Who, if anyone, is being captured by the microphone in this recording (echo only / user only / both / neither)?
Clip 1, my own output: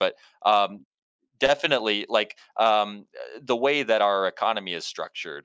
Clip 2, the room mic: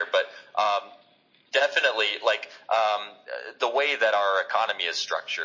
echo only